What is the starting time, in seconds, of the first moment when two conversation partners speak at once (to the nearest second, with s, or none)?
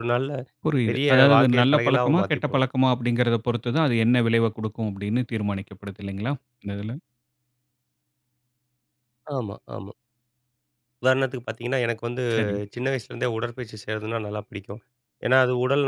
1 s